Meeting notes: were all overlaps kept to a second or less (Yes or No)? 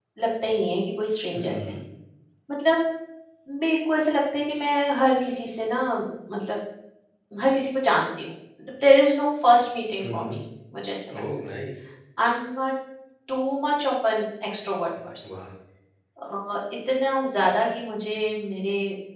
Yes